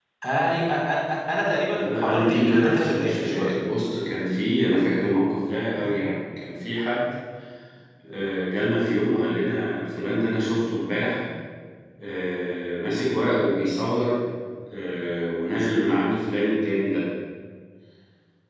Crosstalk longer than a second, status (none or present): present